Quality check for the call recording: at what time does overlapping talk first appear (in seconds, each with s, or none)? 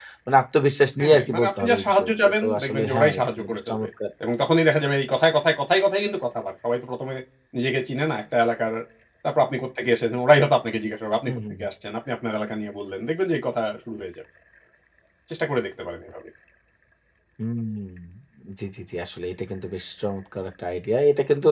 1.0 s